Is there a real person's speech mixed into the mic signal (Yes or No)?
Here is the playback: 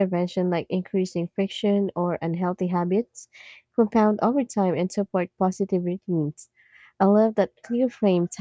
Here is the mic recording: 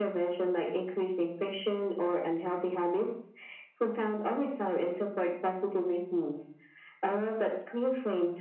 No